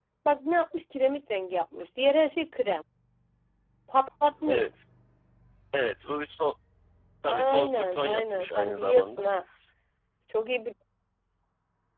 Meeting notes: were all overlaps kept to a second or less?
No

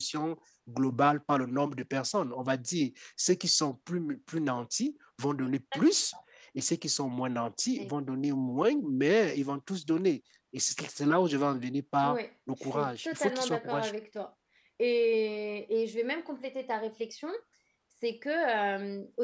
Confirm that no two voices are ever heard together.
No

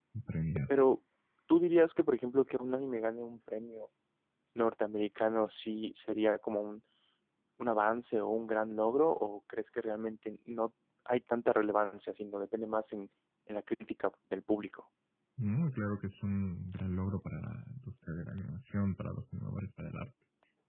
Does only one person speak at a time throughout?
Yes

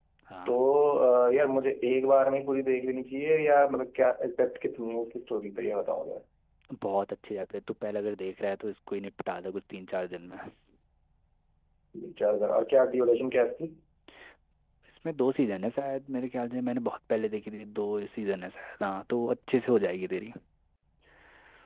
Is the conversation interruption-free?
Yes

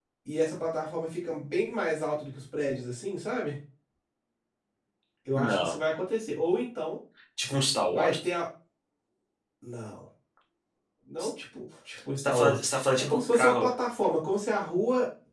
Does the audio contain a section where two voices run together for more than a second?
Yes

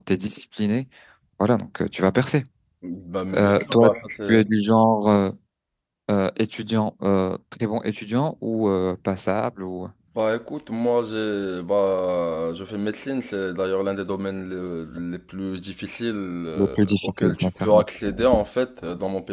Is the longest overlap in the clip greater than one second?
Yes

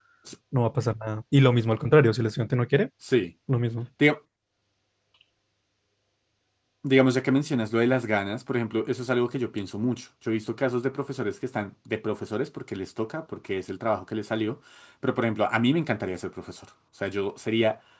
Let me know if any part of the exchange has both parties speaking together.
No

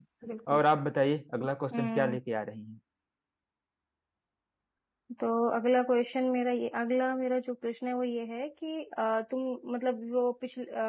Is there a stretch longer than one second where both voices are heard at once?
No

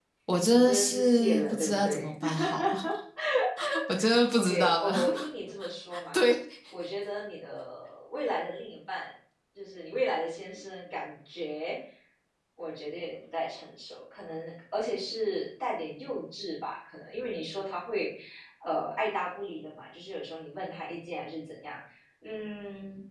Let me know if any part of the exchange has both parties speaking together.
Yes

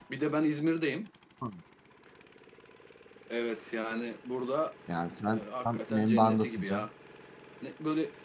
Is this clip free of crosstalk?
No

